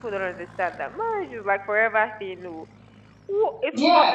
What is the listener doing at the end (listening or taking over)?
taking over